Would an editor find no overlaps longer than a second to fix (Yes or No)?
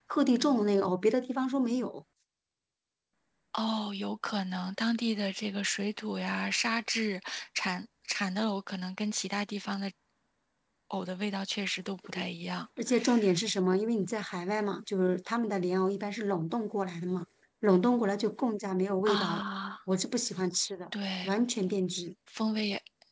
Yes